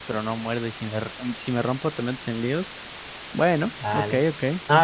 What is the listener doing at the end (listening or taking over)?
taking over